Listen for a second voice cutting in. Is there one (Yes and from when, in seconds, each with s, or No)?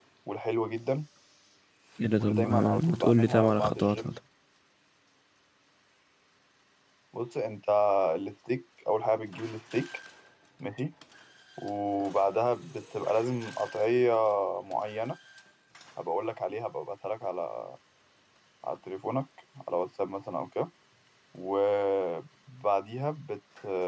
Yes, from 2.2 s